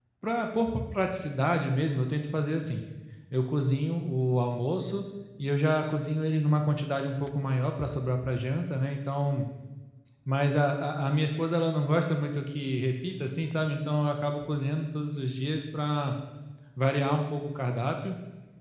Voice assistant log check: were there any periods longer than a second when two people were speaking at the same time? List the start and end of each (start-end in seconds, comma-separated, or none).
none